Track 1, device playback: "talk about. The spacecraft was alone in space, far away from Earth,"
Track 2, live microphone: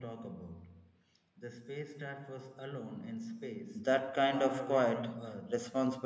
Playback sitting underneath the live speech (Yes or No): Yes